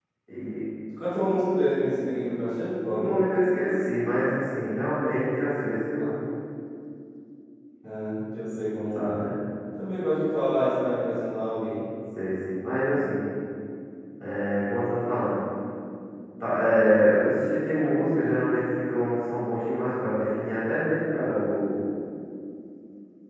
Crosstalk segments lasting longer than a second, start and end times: none

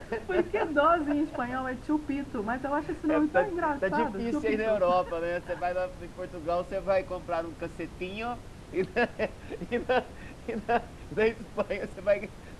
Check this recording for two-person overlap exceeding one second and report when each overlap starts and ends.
3.1-4.8

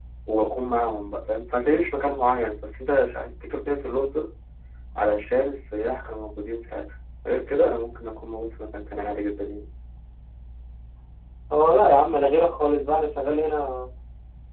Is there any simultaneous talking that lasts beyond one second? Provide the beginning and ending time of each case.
none

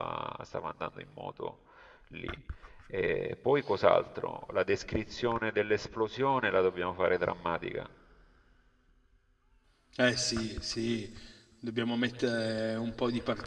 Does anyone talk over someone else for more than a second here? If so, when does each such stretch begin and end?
none

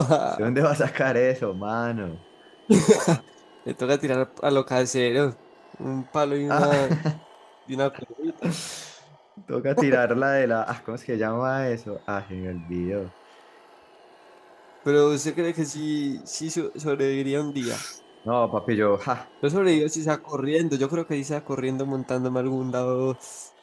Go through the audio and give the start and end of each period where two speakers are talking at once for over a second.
none

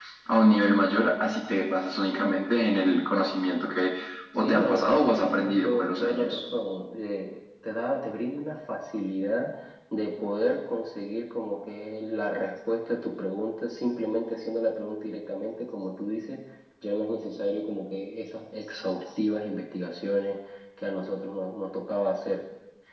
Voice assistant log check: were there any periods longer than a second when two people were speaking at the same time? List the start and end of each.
4.4-6.4

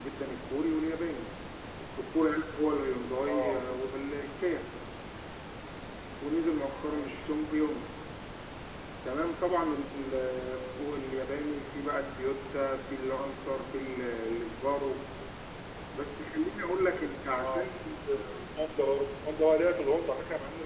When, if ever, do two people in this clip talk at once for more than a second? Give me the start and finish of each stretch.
none

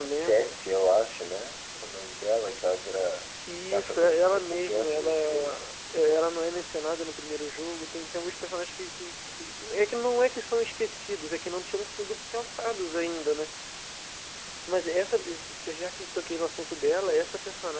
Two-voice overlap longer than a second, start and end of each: 3.7-5.7

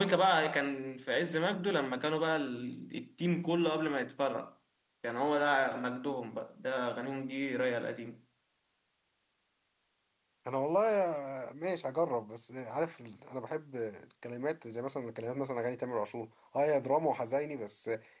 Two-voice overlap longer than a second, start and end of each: none

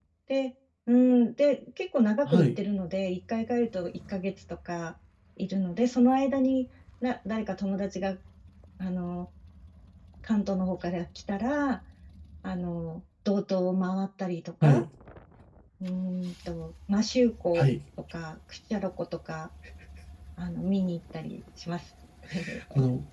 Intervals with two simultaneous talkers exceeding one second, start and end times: none

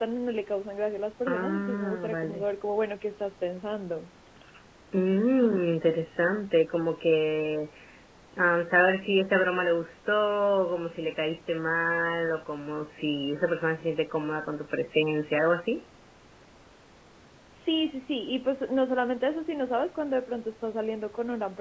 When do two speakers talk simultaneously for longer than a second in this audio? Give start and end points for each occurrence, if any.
1.3-2.5

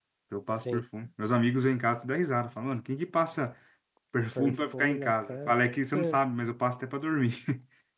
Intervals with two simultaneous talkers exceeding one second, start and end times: 4.3-5.5

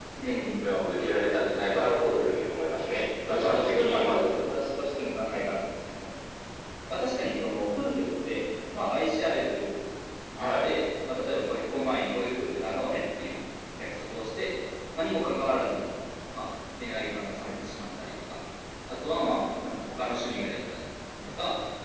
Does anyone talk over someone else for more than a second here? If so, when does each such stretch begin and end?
3.3-4.5

